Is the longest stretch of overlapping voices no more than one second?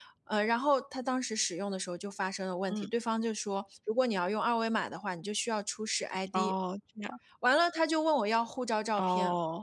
Yes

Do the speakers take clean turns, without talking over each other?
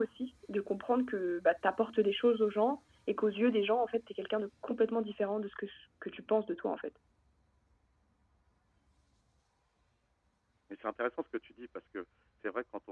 Yes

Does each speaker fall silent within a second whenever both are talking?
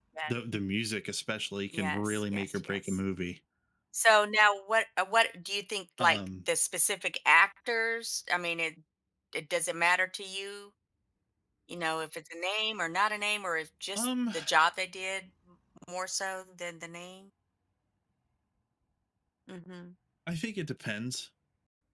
No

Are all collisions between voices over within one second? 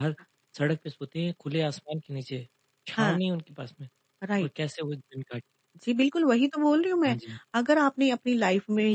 Yes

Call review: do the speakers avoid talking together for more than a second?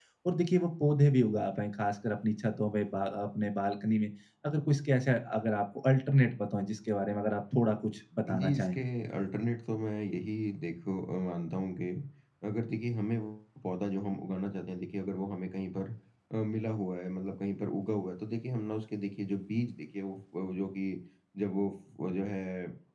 Yes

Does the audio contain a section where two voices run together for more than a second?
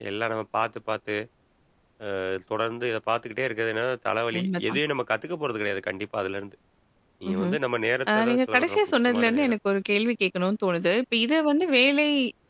Yes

